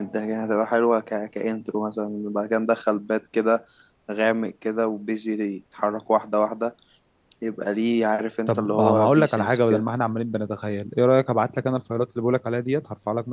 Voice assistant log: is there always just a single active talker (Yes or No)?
No